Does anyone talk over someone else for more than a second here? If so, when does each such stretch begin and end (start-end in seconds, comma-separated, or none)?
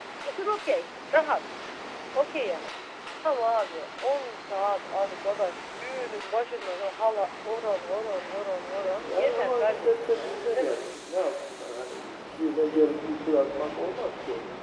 9.0-10.9